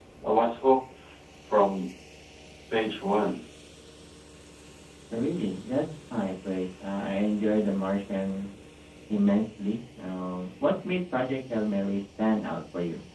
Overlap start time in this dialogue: none

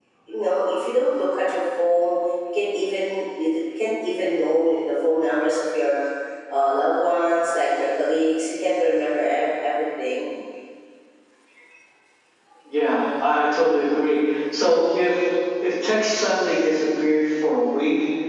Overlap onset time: none

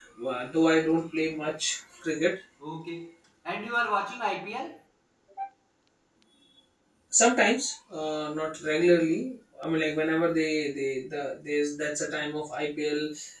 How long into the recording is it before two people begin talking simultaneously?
none

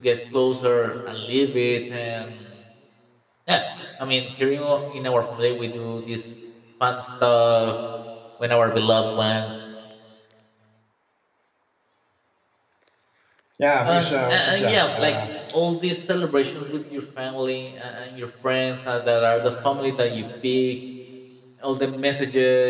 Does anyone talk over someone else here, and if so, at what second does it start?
13.8 s

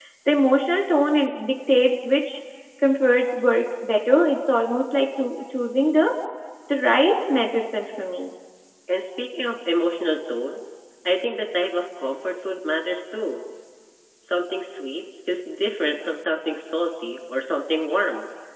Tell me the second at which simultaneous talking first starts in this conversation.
none

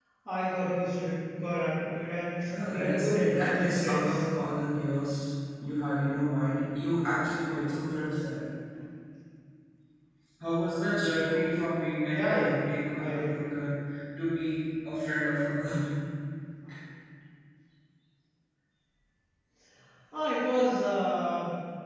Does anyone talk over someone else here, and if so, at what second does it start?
2.7 s

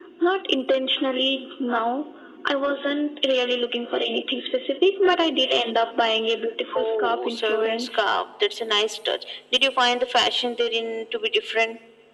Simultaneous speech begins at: 6.7 s

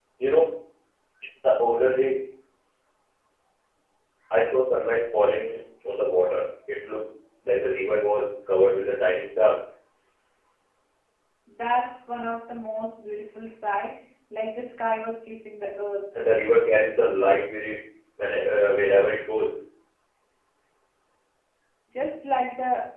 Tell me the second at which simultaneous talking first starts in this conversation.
none

